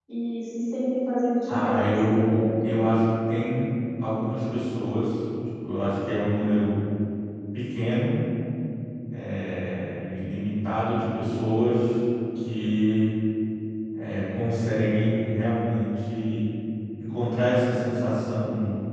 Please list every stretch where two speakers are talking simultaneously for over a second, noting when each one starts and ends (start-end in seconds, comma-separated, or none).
1.5-2.7